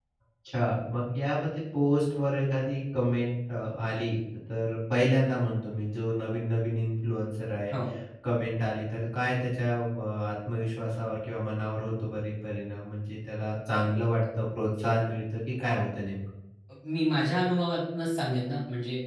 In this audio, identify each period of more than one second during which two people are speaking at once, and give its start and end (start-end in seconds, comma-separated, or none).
none